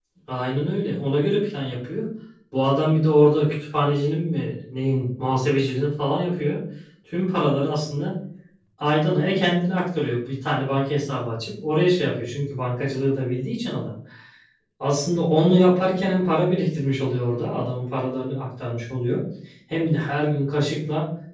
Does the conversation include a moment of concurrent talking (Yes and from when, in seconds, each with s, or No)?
No